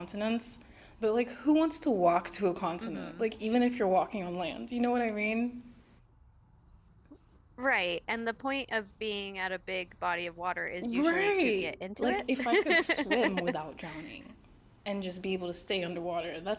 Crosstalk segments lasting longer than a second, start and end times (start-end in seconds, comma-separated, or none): 10.8-13.5